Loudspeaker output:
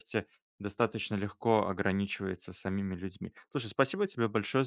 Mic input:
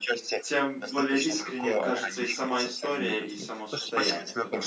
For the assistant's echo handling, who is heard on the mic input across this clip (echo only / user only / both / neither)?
both